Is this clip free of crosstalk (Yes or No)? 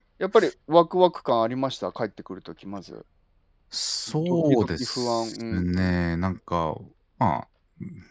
No